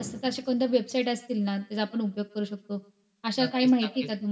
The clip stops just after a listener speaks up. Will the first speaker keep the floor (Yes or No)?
No